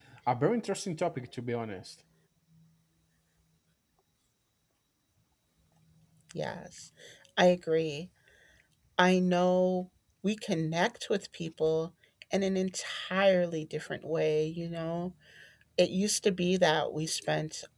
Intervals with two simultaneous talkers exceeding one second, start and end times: none

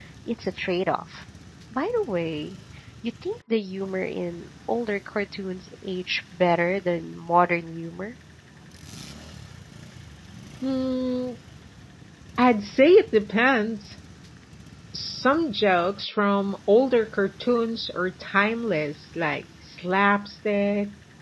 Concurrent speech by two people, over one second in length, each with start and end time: none

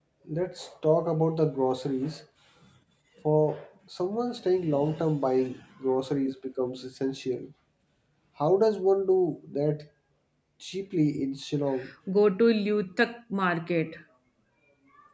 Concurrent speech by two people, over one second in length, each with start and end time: none

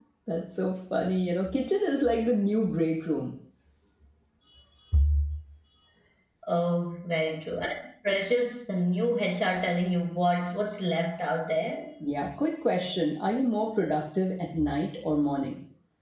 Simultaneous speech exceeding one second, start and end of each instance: none

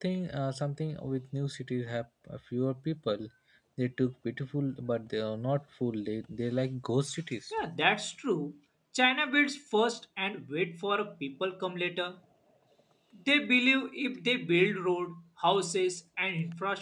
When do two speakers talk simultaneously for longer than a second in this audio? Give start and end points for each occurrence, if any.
none

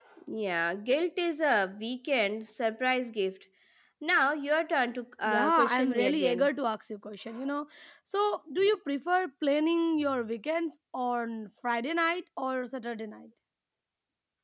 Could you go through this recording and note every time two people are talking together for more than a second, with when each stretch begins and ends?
5.2-6.5

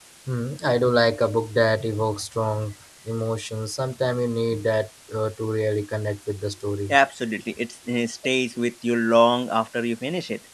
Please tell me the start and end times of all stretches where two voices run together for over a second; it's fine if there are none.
none

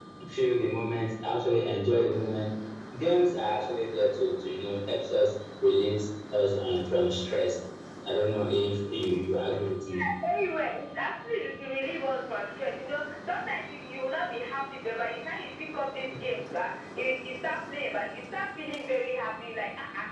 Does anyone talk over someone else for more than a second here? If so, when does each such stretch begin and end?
none

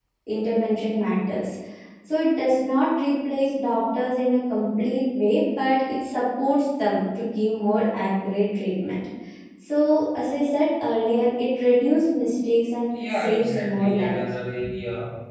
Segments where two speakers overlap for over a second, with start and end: 12.9-14.2

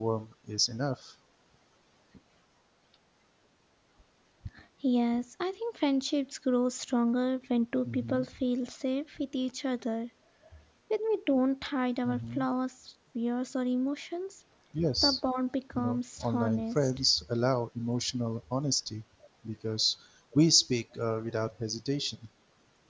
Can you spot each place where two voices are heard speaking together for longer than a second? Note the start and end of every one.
15.8-17.0

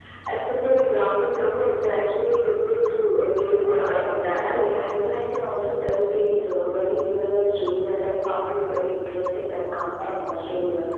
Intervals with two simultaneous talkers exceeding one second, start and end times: 3.6-5.0

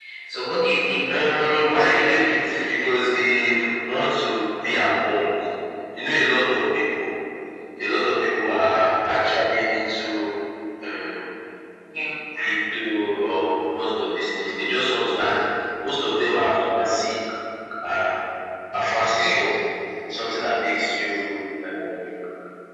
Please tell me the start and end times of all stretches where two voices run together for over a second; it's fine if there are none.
1.1-2.9

